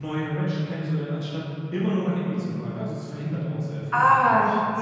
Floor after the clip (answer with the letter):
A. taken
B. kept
A